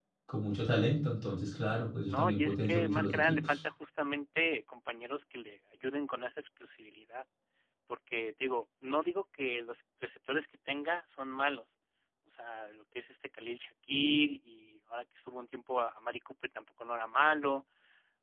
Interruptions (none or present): present